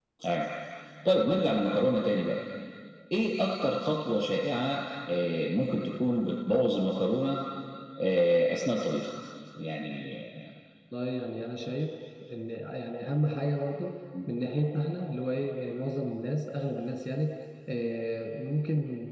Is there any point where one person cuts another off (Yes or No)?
No